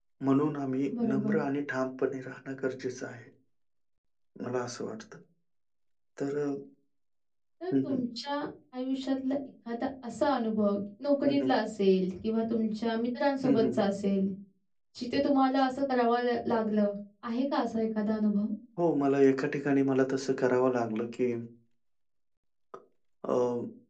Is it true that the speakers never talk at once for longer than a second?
Yes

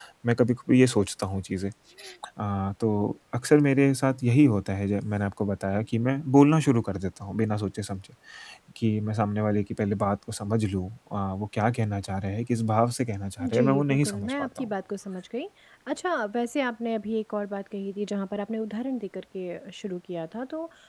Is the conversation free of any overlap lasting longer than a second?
No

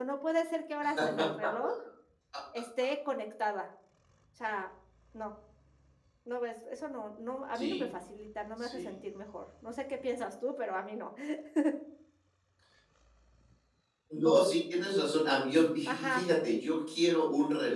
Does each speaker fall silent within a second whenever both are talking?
Yes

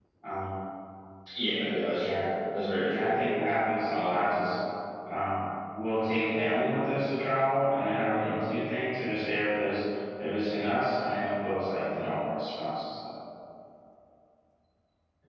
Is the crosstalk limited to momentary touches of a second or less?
Yes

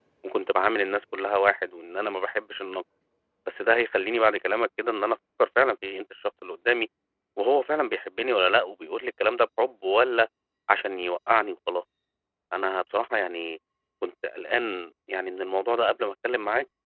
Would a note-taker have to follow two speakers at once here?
No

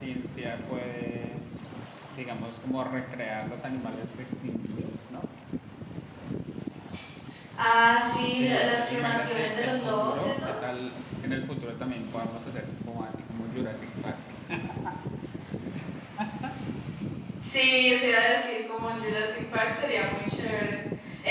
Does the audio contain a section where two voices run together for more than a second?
Yes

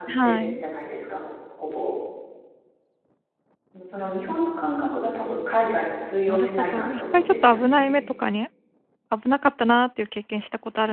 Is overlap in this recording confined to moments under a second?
No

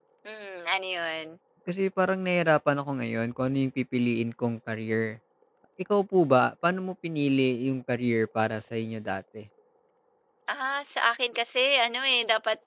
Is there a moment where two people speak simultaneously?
No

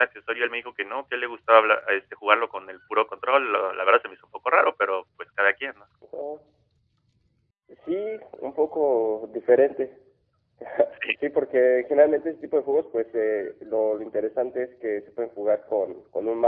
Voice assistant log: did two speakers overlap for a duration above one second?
No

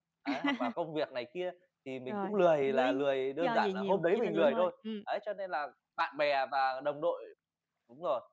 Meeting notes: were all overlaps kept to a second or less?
No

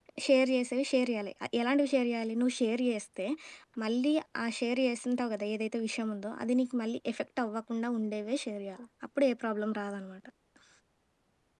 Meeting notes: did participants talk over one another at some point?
No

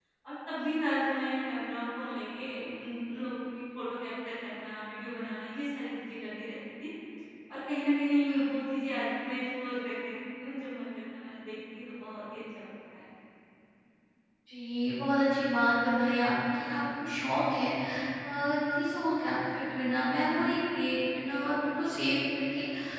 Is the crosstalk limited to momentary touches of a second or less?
Yes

